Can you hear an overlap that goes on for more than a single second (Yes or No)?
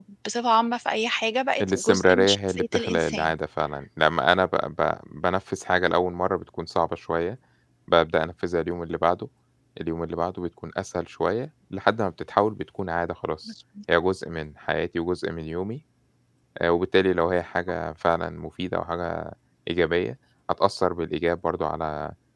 Yes